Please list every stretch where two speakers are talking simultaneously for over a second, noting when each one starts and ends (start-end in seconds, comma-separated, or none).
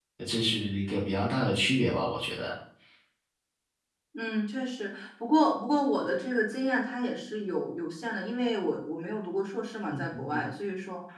none